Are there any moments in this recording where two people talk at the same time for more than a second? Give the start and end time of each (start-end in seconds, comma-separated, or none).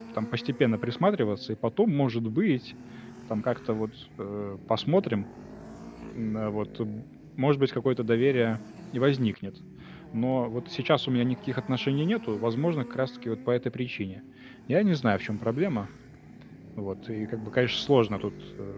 none